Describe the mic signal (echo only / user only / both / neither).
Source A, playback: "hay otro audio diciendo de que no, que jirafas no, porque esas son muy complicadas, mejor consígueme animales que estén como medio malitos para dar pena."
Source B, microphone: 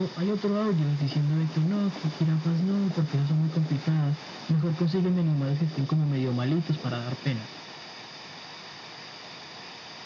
echo only